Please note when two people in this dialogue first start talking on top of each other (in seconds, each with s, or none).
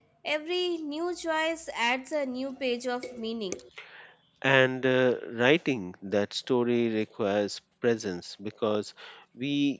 none